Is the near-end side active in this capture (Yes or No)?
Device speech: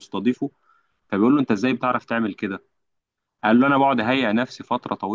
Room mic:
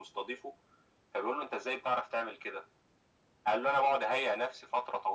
No